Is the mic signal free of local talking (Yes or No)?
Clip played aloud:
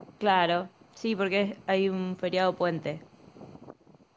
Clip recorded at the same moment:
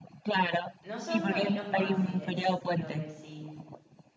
No